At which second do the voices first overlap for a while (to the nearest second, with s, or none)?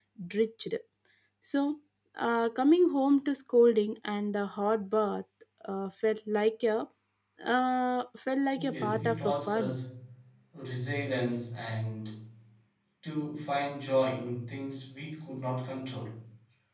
9 s